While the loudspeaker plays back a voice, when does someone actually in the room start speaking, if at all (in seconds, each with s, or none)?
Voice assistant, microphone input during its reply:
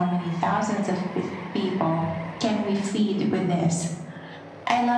none